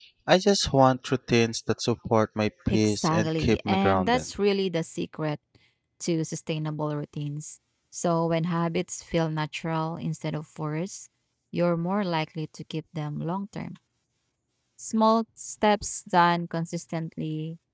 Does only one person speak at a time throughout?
No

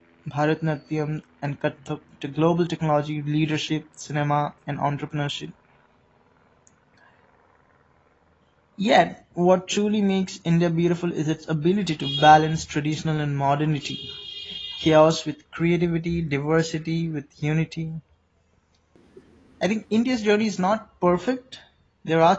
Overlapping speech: No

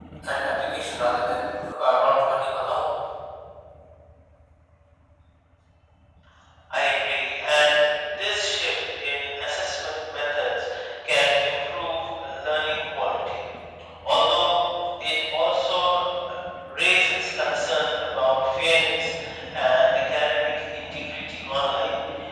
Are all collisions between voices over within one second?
Yes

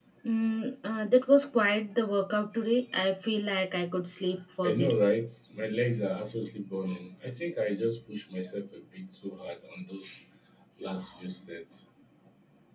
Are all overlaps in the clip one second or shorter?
Yes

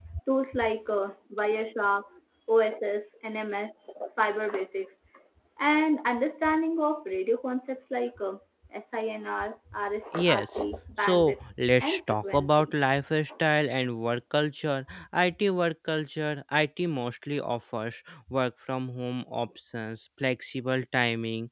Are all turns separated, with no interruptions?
No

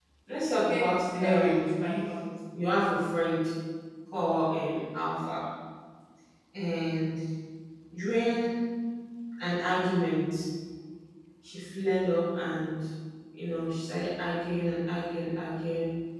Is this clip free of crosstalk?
No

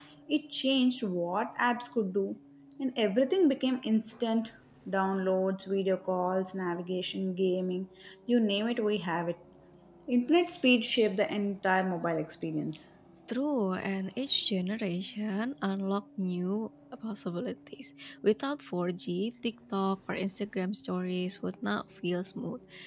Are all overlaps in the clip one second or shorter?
Yes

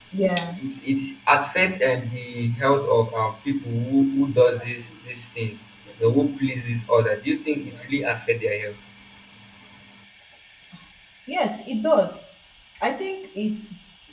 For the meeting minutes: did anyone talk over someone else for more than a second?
No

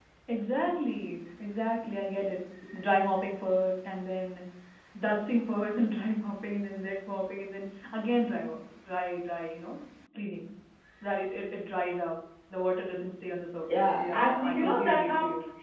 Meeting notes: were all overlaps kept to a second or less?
No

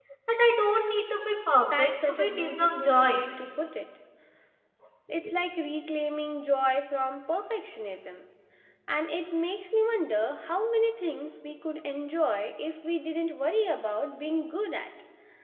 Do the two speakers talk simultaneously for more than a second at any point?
Yes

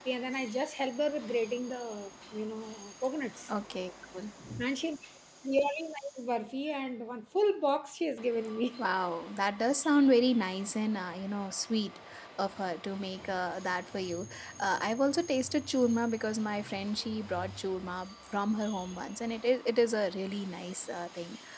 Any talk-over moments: No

